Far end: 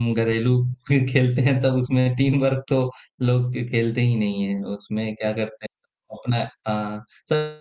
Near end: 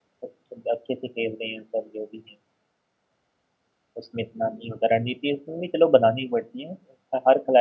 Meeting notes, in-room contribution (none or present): present